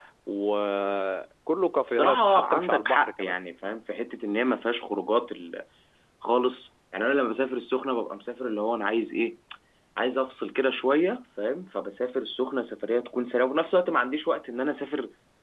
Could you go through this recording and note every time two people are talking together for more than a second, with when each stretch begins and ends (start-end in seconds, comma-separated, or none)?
1.9-3.3